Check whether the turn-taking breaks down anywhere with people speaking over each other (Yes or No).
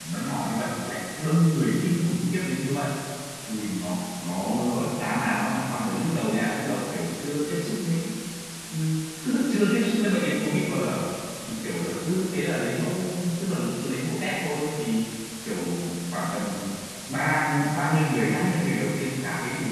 No